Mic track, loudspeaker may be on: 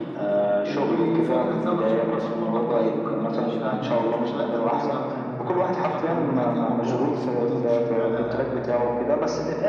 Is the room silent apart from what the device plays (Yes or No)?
Yes